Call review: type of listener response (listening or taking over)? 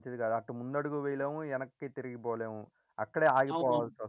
listening